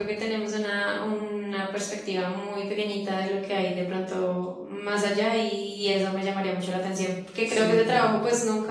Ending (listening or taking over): listening